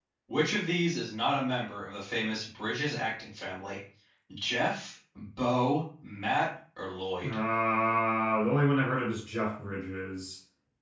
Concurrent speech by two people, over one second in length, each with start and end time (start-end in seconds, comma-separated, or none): none